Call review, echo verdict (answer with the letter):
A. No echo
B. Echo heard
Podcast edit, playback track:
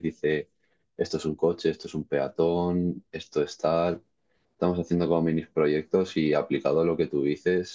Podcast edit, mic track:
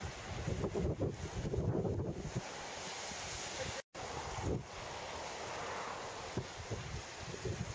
A